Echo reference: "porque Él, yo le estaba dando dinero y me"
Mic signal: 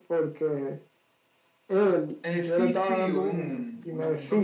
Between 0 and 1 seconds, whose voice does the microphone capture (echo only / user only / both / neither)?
echo only